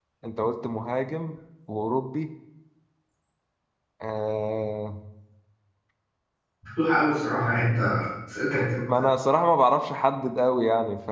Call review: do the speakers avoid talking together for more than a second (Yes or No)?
Yes